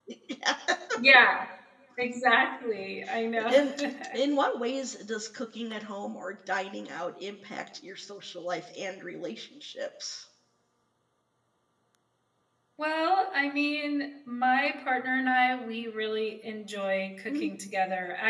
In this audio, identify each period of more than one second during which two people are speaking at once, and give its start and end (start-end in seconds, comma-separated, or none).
none